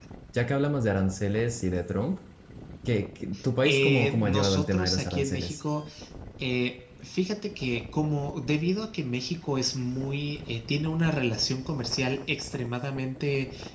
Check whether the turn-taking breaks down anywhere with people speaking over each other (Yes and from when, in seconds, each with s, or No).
Yes, from 3.6 s